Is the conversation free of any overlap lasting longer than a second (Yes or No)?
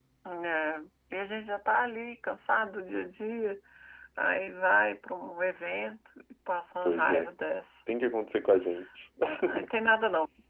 Yes